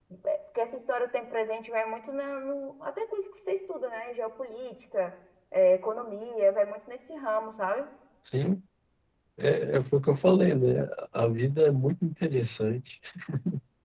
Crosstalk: none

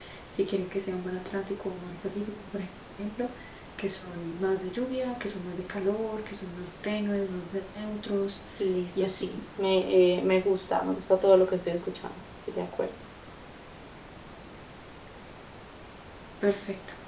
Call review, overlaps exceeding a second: none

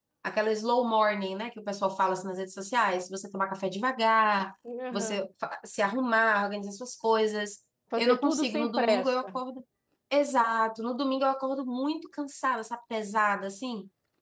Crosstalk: present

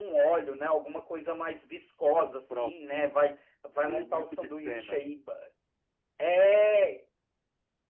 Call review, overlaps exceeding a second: present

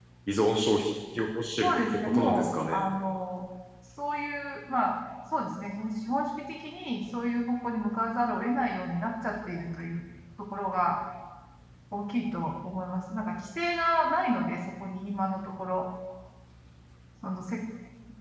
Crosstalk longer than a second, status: present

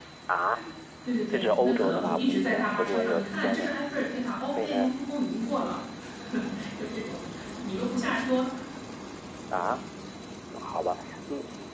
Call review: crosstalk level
present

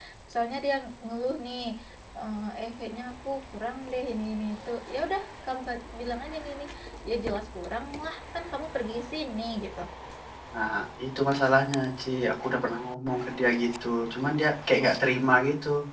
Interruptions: none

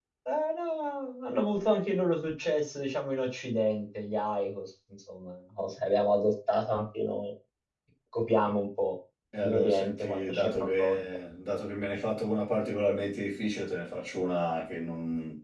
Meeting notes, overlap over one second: present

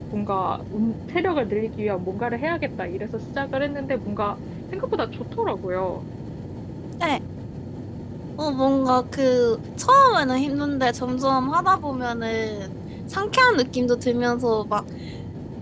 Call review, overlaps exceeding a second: none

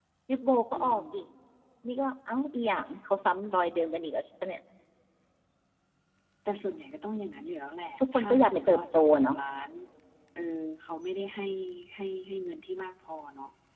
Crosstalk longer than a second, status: present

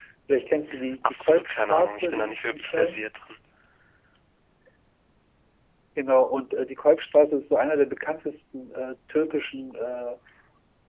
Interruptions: present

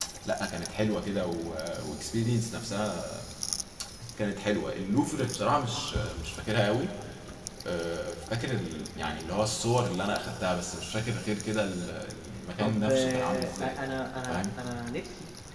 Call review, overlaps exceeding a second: present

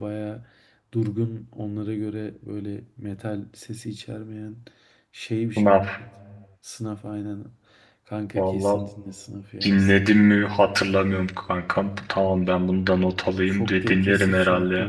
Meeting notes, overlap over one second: present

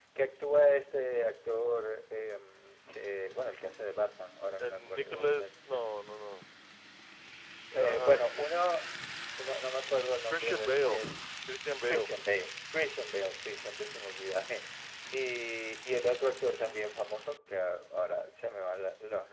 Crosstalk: present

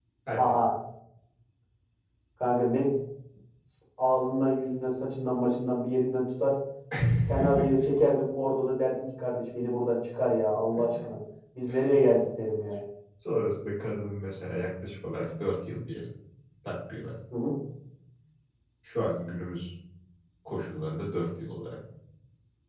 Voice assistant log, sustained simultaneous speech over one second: none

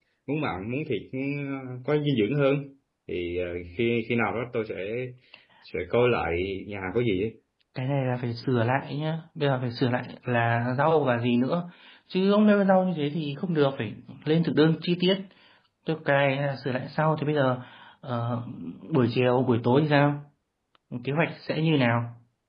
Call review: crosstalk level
none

